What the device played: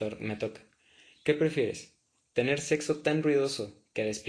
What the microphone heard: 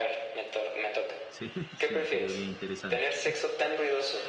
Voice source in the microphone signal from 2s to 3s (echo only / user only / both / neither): both